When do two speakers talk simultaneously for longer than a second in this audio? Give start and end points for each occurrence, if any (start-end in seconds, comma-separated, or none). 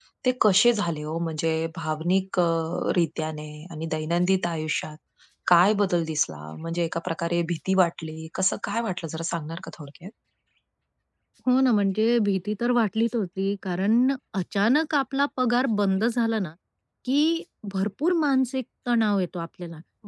none